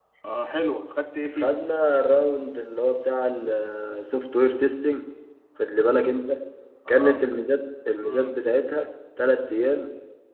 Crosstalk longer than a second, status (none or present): none